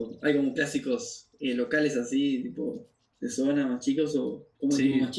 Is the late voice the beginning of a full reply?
Yes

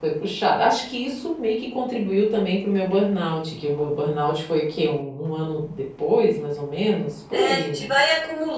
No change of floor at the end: No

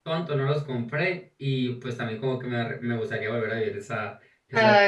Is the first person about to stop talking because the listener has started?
Yes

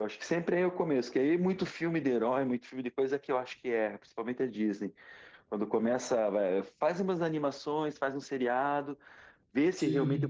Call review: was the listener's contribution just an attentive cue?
Yes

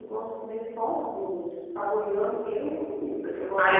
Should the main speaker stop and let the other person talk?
Yes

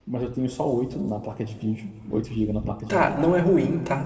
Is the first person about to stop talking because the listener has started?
Yes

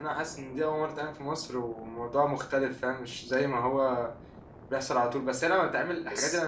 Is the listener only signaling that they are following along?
Yes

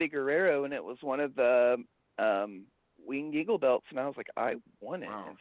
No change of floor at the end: No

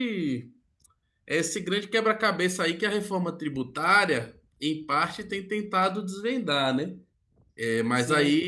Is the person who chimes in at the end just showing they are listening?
No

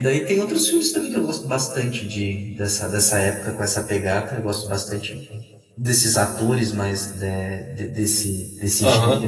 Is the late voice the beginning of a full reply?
Yes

